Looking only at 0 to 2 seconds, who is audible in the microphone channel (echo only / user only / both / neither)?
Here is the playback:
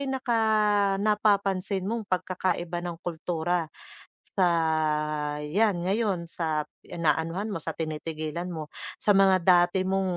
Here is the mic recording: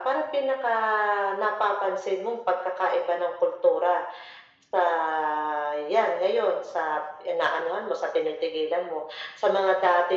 echo only